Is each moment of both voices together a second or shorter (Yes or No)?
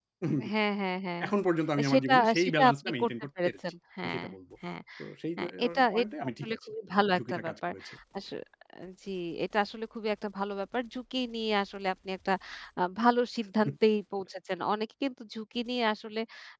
No